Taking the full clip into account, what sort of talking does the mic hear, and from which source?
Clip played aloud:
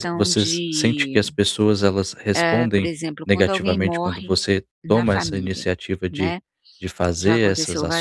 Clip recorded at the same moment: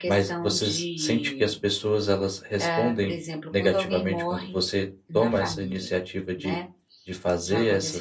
echo only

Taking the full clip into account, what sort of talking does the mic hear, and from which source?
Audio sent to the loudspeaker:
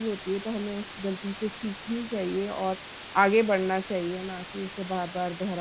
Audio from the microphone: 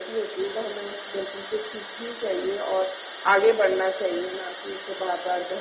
echo only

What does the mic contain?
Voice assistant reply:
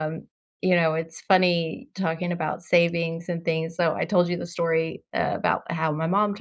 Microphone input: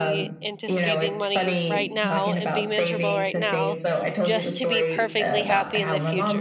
both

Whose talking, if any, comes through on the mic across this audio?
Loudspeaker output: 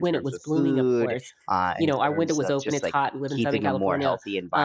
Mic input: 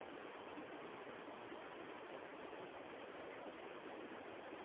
neither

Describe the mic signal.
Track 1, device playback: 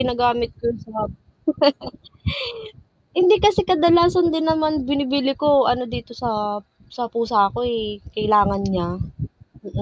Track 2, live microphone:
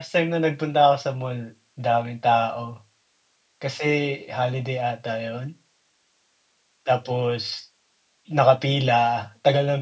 user only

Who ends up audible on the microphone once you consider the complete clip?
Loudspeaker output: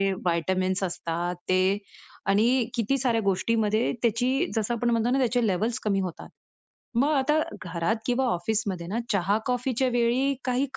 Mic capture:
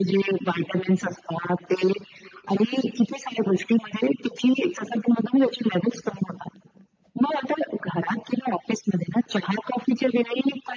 echo only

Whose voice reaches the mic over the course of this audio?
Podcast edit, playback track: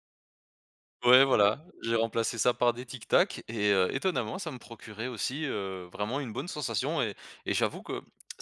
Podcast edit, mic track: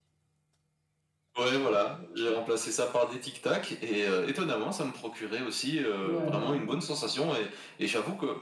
both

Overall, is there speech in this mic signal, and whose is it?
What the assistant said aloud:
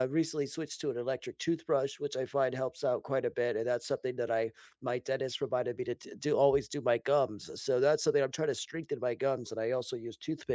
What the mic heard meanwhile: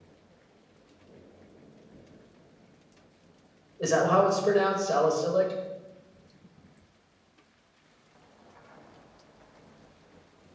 user only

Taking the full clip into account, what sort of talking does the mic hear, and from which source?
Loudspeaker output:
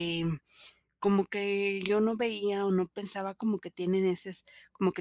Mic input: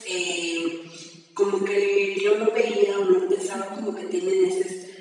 both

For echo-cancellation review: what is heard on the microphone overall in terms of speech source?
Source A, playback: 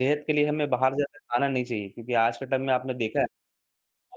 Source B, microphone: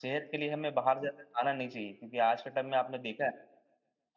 echo only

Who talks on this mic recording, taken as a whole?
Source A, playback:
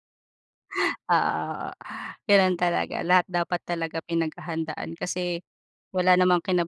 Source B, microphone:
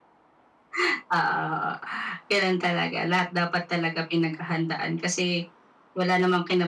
echo only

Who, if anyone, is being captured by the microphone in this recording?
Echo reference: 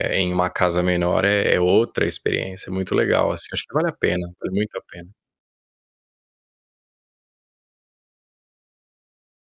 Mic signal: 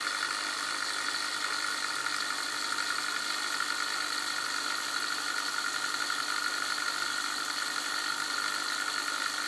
neither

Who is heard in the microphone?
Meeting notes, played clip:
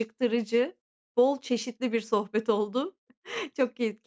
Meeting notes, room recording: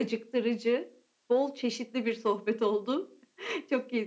echo only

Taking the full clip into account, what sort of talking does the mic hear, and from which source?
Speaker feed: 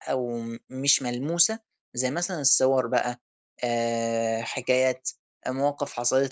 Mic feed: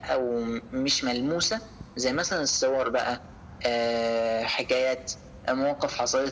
echo only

